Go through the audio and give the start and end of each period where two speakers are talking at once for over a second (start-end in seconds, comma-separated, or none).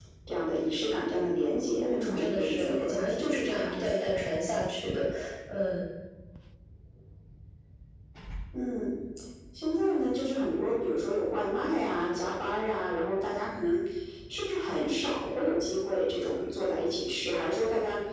1.8-4.0